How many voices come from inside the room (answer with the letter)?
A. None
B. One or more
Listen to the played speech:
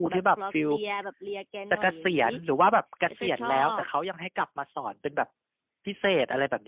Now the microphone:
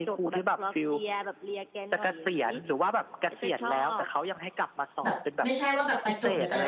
B